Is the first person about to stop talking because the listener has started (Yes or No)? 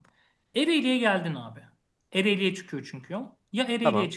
No